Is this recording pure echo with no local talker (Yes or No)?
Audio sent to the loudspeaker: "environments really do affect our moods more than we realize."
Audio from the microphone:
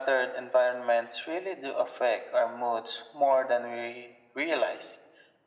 Yes